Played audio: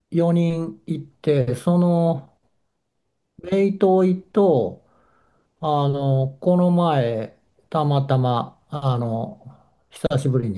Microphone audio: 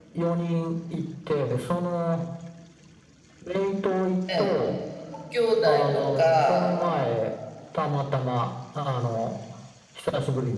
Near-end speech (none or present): present